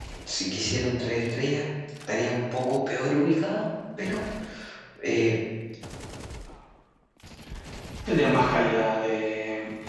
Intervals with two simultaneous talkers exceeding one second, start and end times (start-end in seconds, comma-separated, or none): none